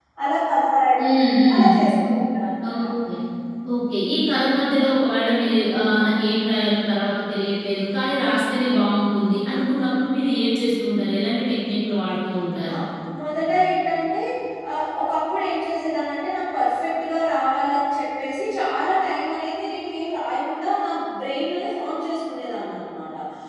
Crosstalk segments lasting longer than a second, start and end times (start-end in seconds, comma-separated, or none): none